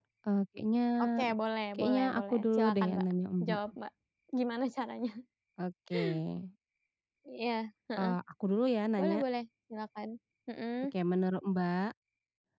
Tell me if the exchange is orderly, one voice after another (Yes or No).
No